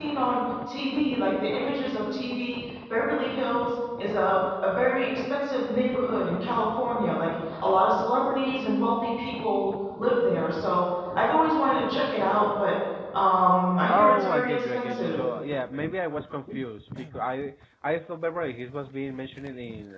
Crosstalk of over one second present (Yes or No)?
Yes